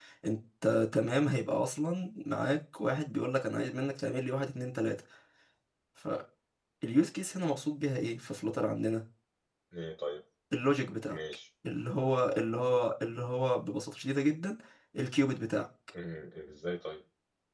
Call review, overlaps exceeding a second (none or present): none